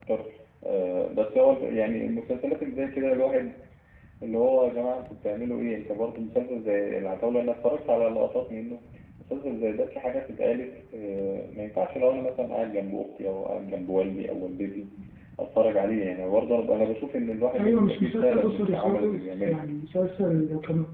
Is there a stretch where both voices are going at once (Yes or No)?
Yes